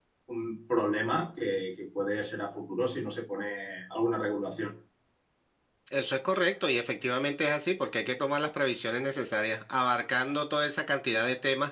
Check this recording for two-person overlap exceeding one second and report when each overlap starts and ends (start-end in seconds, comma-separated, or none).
none